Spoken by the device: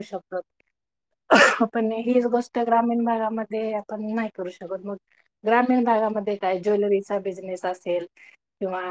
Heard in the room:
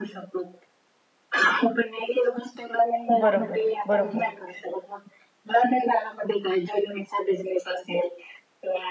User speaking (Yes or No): Yes